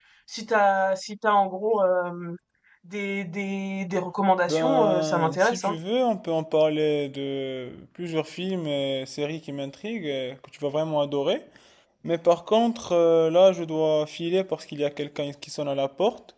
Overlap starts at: 4.5 s

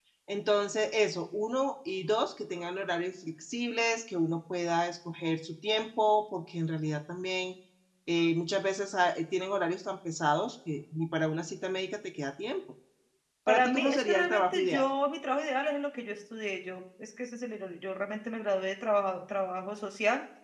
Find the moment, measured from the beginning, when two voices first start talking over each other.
13.5 s

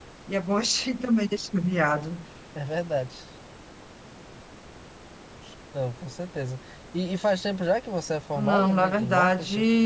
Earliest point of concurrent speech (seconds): 8.3 s

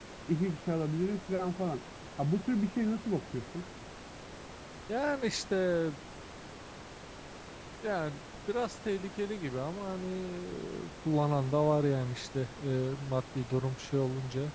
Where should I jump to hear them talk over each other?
none

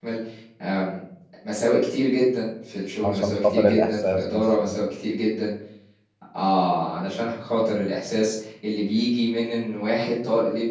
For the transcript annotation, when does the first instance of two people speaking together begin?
3.0 s

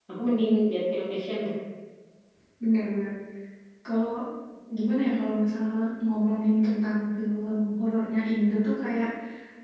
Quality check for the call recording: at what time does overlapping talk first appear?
none

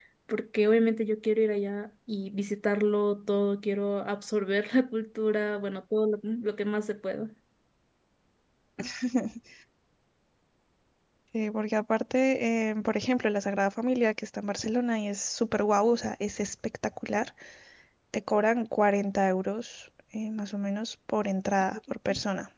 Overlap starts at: none

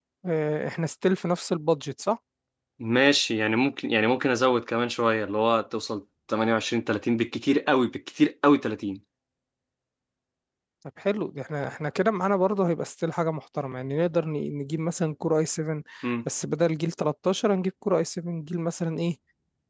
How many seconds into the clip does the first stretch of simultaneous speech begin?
none

